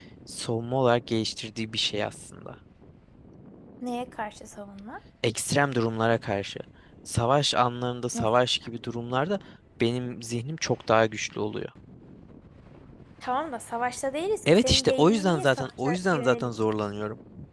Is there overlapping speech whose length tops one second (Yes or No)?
Yes